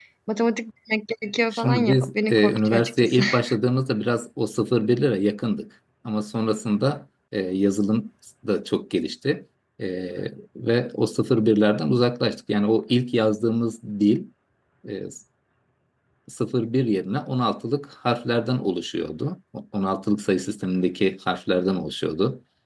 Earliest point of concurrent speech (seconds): 1.5 s

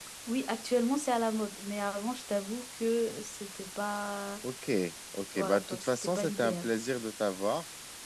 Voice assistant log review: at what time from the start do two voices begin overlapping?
5.3 s

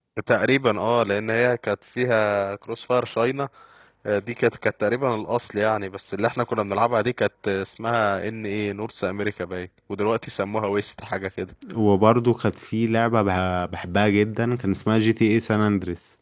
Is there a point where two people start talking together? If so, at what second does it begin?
none

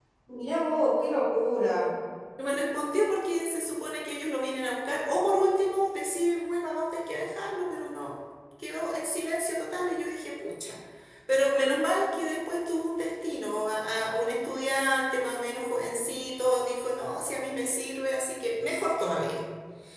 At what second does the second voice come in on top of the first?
none

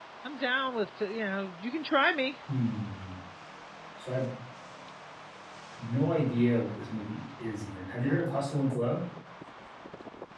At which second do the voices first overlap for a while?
none

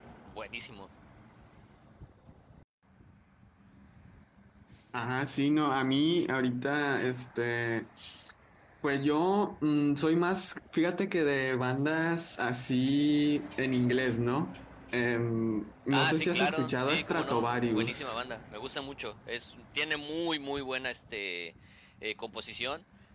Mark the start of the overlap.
15.9 s

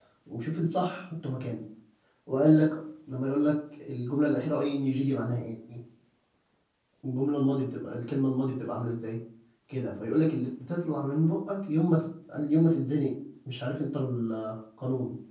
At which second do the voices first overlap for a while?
none

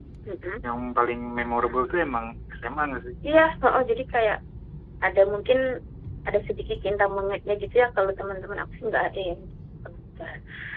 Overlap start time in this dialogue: none

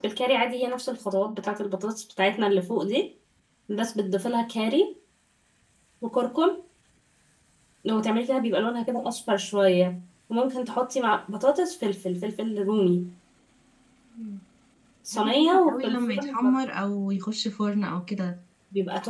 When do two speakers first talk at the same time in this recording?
15.1 s

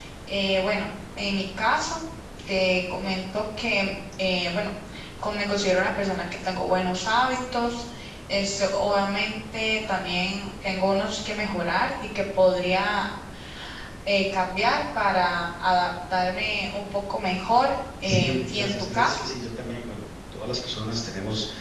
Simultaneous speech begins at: 18.0 s

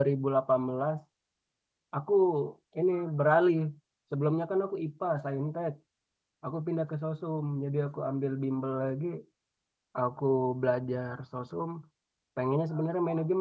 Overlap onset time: none

